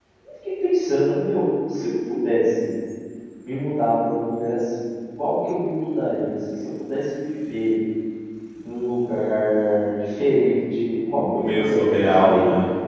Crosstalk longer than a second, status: present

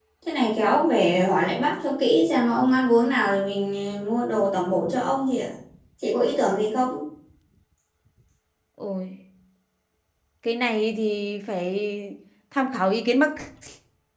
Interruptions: none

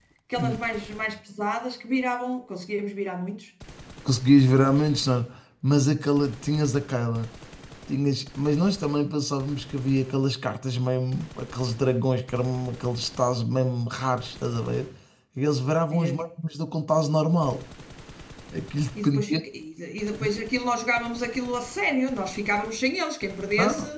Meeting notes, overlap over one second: none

